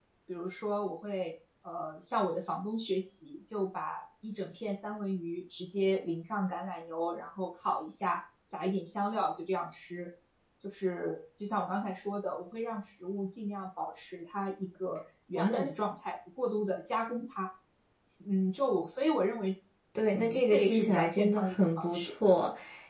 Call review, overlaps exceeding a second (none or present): present